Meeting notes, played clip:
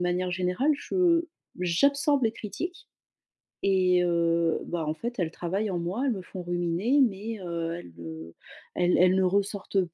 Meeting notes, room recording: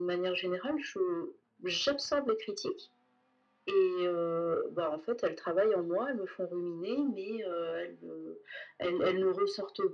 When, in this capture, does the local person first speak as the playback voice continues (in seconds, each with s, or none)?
none